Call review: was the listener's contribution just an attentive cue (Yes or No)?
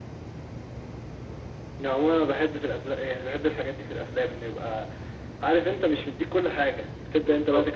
Yes